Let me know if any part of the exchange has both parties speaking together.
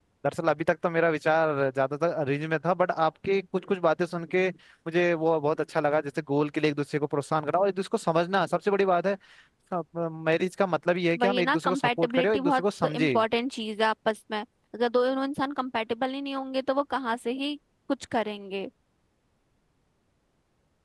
Yes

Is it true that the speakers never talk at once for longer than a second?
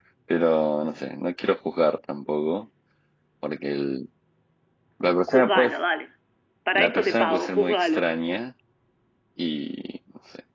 No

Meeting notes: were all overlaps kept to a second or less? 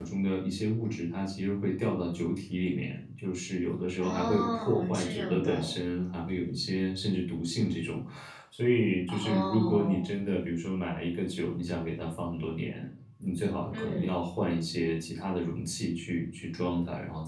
No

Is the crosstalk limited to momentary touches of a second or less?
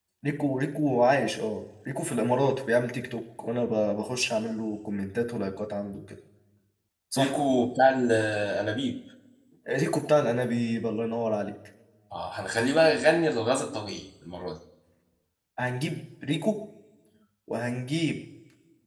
Yes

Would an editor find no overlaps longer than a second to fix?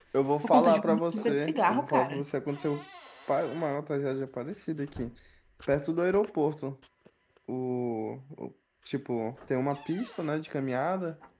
No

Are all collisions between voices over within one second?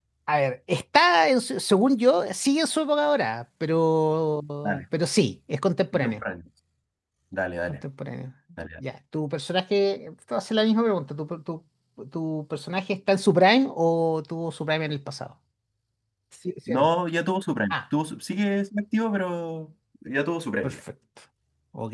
Yes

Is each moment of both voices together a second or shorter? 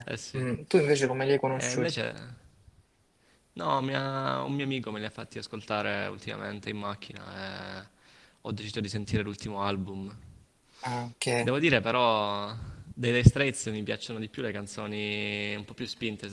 Yes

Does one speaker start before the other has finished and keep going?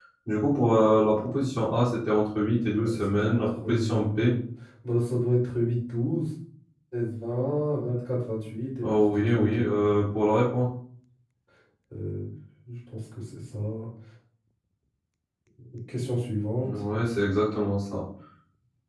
Yes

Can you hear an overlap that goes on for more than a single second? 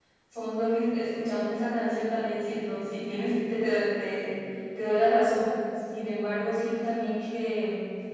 No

